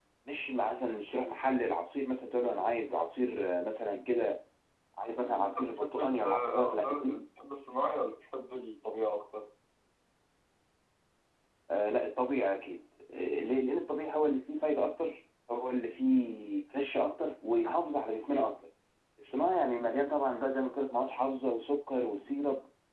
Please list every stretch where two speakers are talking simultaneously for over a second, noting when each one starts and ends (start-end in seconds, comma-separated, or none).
5.2-7.2